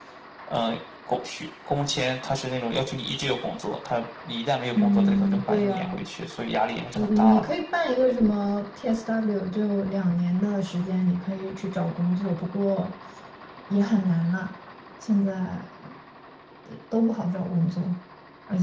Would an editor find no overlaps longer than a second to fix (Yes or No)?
No